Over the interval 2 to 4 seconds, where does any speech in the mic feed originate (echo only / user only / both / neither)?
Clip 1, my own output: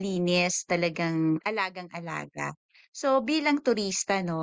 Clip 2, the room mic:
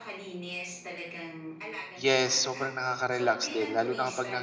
both